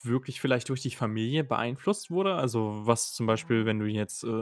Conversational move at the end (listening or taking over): listening